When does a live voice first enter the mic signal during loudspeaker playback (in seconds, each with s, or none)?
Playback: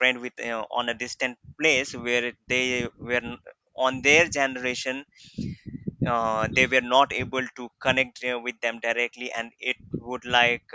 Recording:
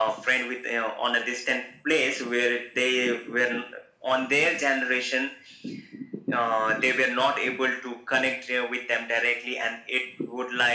none